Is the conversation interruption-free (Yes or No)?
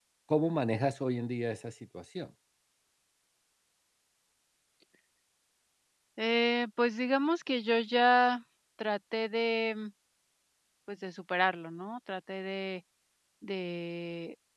Yes